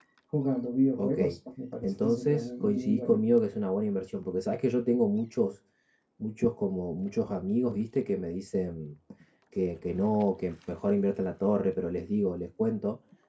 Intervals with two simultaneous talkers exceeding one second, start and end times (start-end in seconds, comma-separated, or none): 1.8-3.2